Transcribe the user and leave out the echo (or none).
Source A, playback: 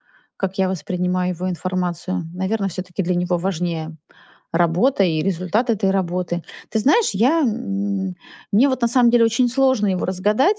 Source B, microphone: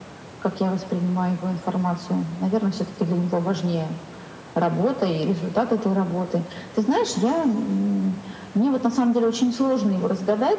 none